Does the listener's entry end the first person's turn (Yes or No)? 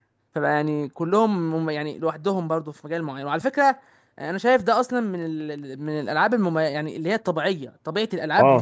Yes